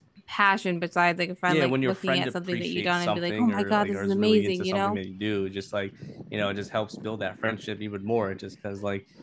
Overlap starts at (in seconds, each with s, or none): 1.5 s